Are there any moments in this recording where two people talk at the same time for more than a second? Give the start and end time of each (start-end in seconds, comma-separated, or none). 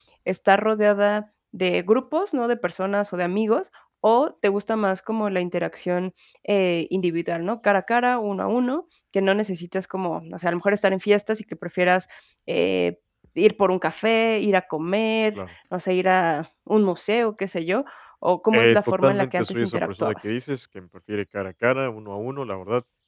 18.5-20.1